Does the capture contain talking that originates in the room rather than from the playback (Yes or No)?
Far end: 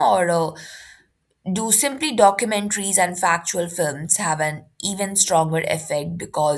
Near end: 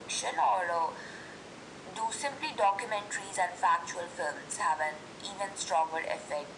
No